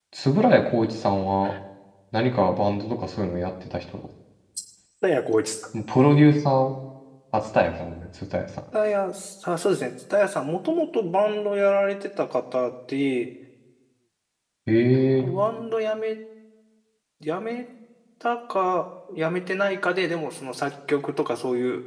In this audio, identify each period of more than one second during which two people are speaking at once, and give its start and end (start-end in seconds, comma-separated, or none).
none